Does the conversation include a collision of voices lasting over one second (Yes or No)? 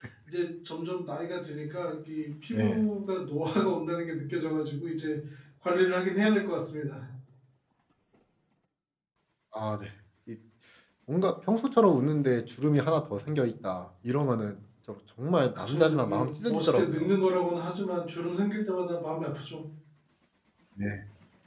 Yes